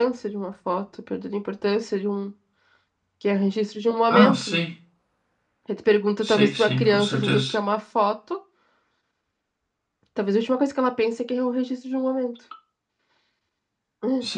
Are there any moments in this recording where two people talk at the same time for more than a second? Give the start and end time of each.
6.2-7.5

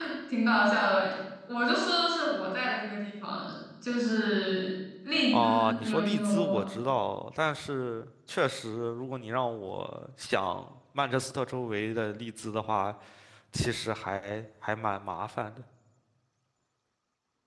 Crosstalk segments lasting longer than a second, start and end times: 5.3-6.6

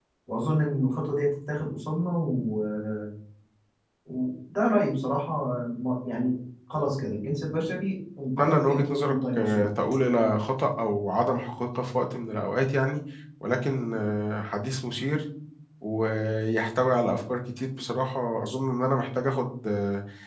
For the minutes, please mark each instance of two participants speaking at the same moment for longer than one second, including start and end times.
8.4-9.7

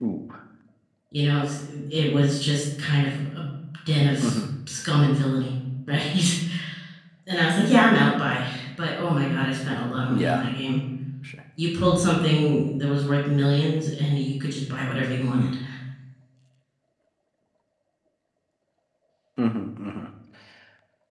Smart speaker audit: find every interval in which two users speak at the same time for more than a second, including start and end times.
none

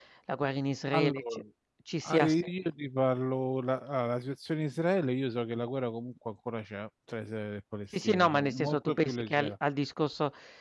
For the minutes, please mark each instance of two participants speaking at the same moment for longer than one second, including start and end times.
8.0-9.5

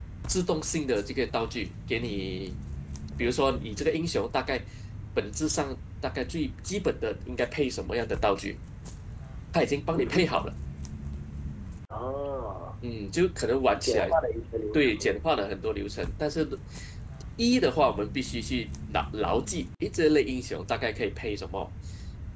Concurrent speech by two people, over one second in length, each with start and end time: none

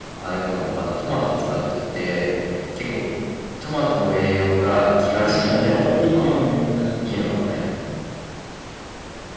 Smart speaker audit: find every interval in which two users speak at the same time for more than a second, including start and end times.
5.2-6.4

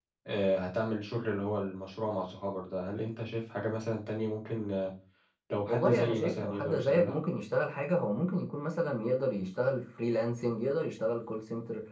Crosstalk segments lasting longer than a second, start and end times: 5.7-7.2

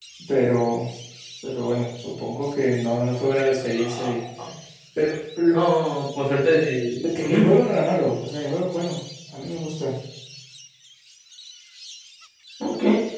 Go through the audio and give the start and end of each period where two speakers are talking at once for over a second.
none

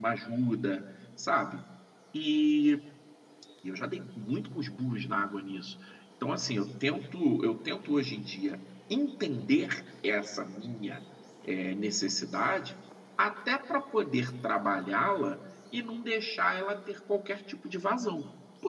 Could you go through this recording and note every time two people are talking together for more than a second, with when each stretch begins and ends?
none

